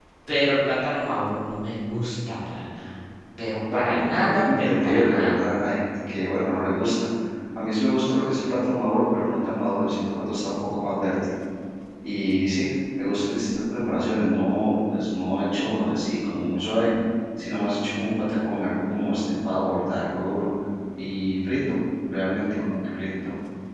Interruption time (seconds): 4 s

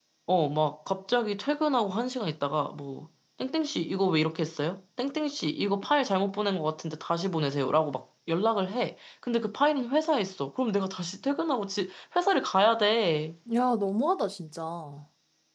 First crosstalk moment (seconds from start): none

